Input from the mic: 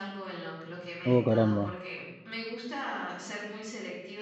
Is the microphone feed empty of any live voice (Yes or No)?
No